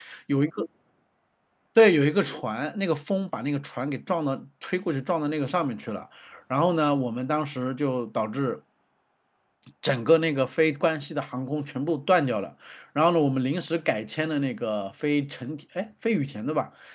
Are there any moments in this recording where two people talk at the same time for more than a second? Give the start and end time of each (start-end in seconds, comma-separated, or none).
none